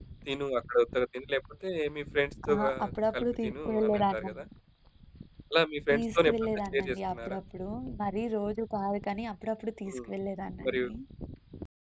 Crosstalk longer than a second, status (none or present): present